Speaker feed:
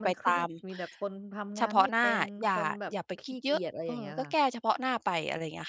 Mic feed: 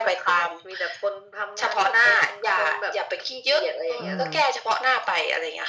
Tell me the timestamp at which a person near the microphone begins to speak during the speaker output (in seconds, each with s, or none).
4.0 s